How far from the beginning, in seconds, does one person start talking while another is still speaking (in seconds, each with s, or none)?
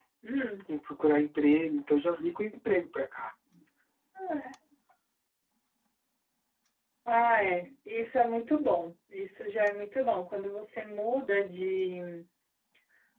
none